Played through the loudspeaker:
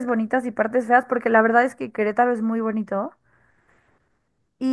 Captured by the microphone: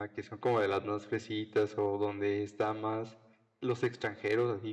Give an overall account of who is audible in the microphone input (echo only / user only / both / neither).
user only